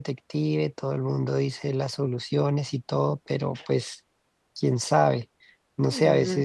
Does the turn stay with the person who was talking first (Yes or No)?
Yes